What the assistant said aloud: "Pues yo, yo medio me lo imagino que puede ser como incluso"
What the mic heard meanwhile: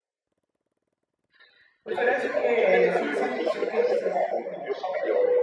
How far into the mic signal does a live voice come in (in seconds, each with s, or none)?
1.8 s